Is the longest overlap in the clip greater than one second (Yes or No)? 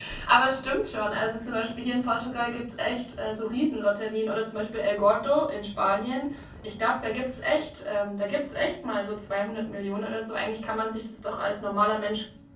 No